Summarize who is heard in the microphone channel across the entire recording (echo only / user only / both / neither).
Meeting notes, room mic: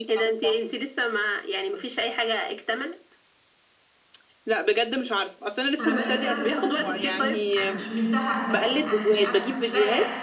both